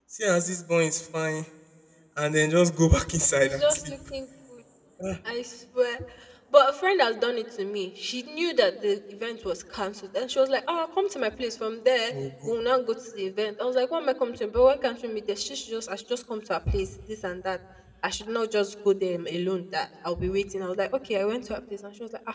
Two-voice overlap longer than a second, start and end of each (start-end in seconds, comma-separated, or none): none